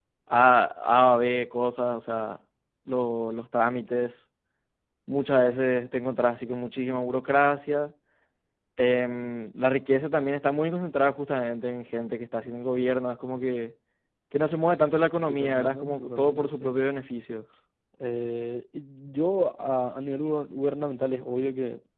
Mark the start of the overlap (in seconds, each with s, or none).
15.3 s